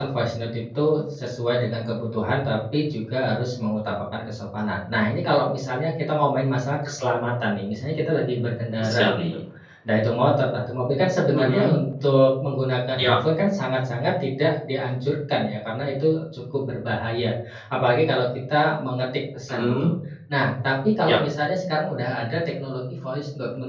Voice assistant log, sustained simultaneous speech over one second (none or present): none